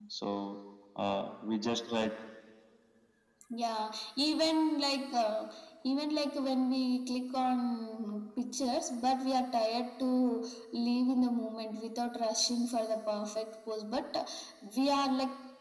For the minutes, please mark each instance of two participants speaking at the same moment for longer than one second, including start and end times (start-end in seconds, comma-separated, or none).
none